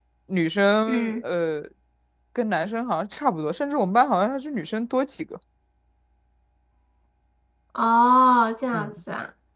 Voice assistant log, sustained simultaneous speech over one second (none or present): none